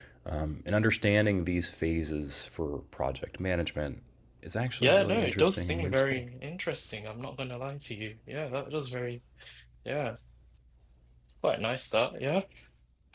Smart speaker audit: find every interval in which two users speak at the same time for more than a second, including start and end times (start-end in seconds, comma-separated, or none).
4.8-6.2